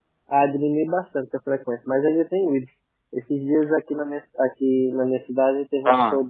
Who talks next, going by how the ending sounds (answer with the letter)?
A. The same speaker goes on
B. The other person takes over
A